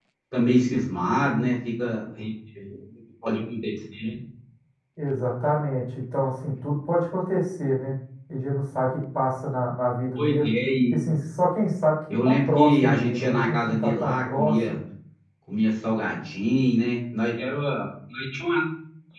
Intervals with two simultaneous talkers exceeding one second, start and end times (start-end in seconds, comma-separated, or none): 12.2-14.8